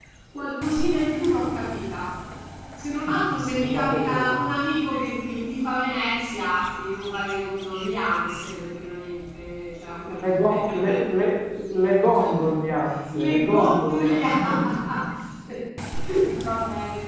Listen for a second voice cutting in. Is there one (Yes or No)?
Yes